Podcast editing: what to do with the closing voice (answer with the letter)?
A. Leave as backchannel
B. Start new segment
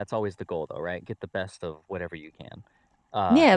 B